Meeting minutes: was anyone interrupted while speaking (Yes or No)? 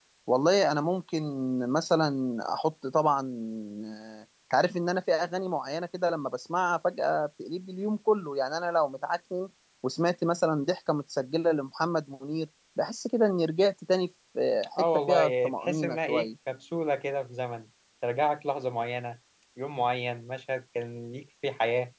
Yes